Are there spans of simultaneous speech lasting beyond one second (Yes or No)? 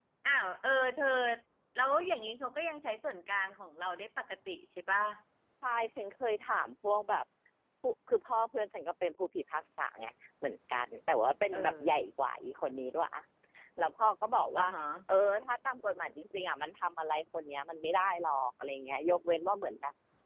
No